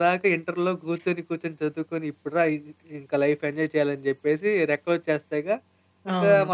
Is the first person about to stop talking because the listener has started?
No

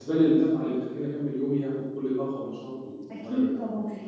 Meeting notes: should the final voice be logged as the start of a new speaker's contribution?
Yes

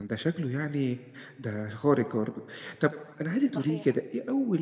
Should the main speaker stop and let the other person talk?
No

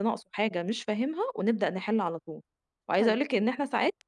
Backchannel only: Yes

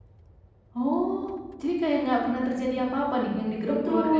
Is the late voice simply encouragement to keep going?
No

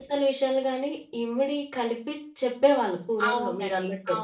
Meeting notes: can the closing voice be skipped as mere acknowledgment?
No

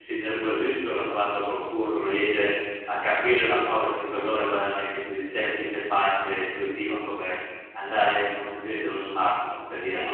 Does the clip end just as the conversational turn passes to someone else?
No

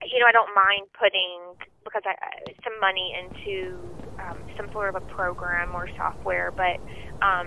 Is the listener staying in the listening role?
Yes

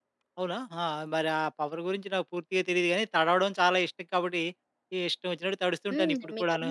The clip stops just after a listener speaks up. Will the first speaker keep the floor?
No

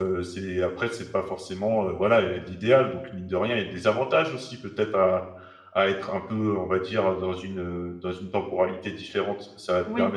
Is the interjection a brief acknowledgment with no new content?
Yes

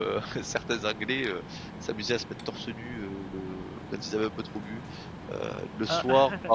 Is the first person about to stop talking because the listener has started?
No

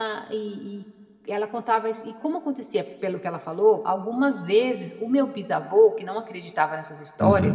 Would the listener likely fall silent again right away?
Yes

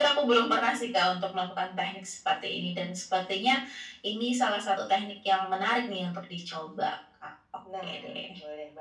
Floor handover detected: Yes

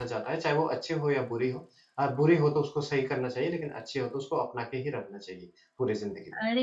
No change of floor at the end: No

